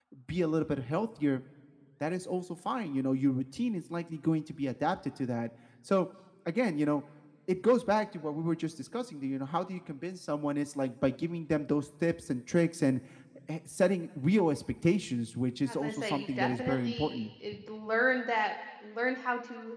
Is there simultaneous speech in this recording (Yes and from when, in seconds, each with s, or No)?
Yes, from 15.7 s